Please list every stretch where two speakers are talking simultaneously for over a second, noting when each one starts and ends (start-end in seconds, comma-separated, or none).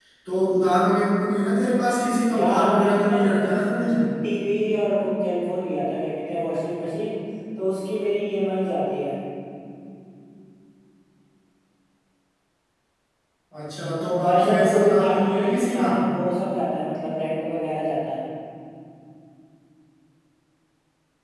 2.3-3.5, 14.2-15.8